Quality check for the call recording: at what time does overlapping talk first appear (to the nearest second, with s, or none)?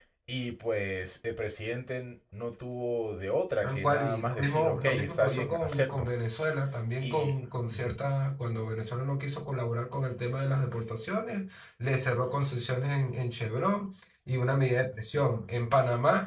4 s